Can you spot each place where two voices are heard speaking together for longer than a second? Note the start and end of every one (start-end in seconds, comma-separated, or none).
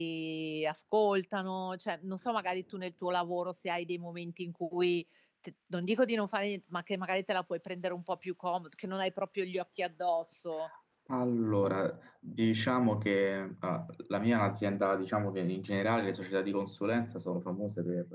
none